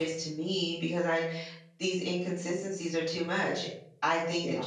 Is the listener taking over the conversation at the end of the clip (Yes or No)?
No